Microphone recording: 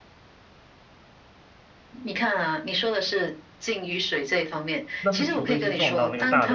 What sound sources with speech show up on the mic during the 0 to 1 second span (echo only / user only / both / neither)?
neither